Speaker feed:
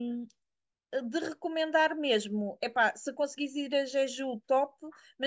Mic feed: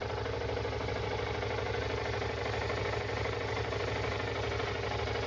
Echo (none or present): none